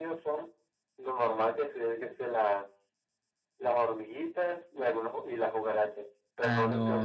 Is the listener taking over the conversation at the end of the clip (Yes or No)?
Yes